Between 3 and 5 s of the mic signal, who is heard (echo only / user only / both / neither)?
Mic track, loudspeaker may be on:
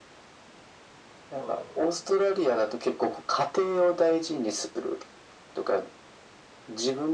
echo only